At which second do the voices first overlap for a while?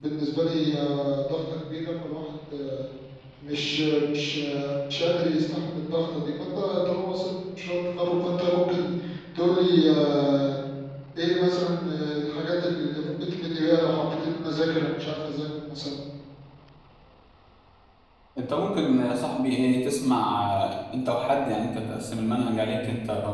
none

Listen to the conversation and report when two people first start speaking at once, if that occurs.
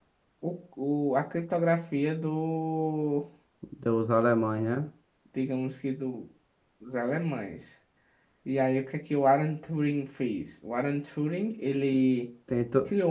none

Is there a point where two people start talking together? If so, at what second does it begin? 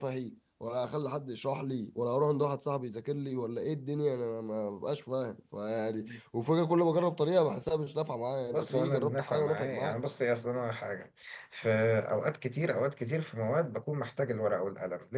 8.5 s

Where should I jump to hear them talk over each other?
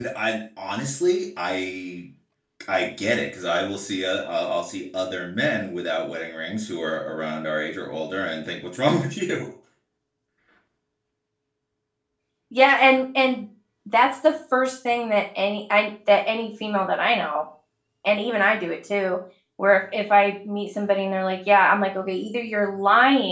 none

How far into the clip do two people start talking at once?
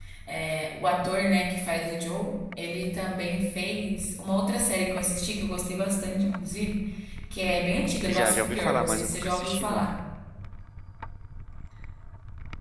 8.1 s

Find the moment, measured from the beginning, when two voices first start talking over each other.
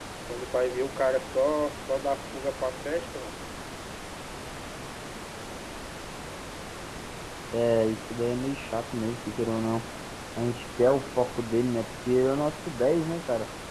none

